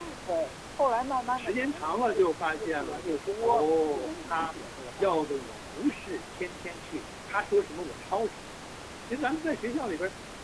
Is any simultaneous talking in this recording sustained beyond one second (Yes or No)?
Yes